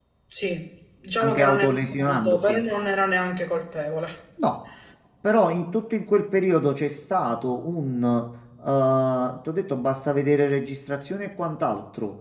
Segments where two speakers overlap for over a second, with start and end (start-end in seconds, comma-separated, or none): 1.2-2.6